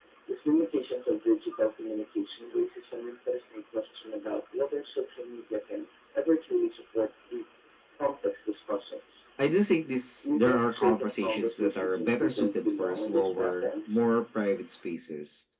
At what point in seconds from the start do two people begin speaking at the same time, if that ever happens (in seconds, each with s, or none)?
10.2 s